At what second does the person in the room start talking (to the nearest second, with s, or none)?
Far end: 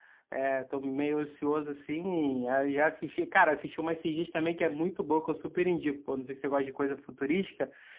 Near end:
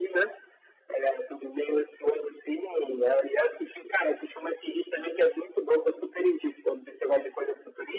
none